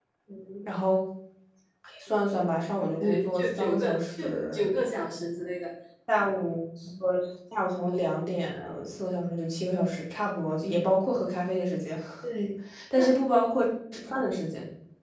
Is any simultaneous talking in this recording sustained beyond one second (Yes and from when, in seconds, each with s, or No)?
Yes, from 3.0 s